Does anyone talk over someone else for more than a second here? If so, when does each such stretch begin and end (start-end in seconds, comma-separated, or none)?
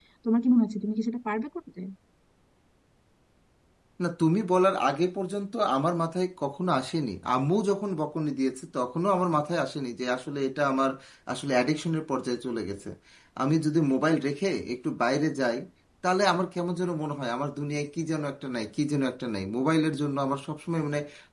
none